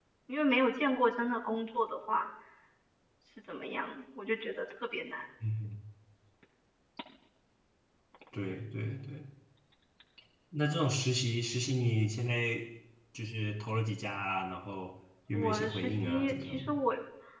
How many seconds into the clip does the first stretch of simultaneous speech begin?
15 s

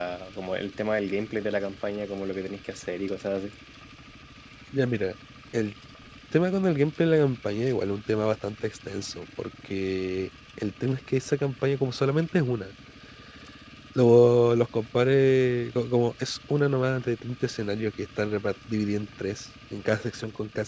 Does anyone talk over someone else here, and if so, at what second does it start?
none

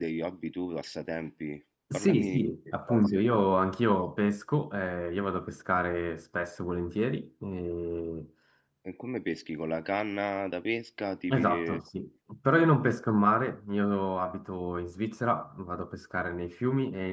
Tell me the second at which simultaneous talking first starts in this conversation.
2 s

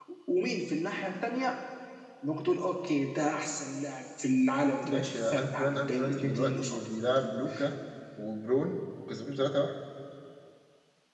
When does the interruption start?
5 s

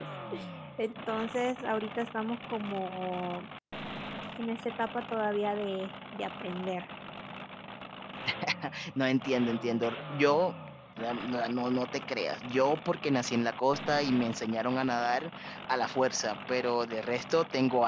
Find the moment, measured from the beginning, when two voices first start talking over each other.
none

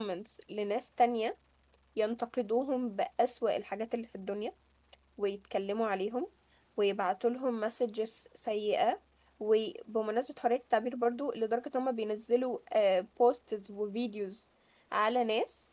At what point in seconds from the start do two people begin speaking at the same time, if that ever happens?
none

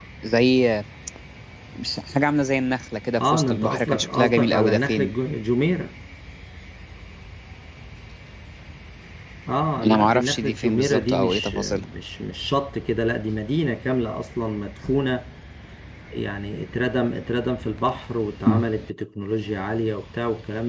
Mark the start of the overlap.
3 s

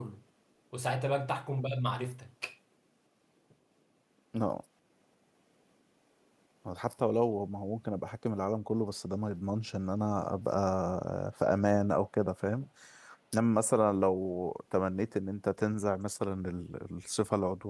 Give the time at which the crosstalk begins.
none

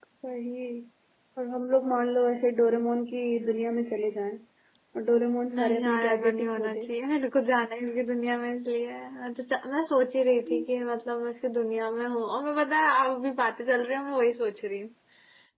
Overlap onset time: 6 s

